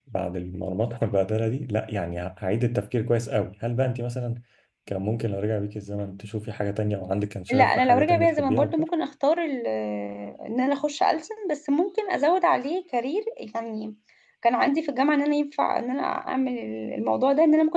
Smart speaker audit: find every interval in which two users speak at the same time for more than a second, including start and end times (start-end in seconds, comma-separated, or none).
7.5-8.8